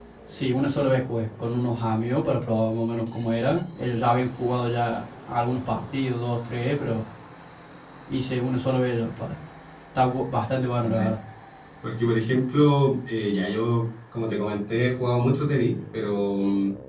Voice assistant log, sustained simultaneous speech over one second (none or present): none